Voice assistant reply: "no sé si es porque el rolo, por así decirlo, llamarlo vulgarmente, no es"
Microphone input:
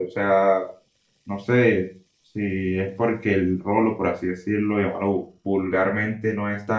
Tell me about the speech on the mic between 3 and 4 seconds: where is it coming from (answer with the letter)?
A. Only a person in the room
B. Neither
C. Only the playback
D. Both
C